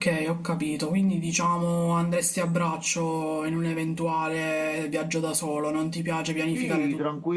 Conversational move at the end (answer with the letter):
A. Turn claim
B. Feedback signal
A